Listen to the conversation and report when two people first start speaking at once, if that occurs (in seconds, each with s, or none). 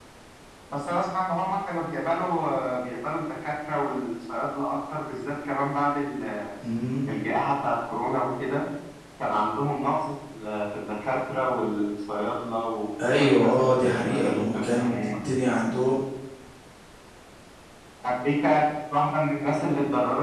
13.0 s